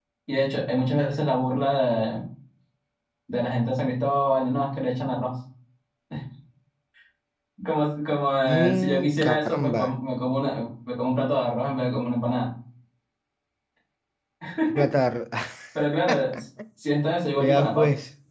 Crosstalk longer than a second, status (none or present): present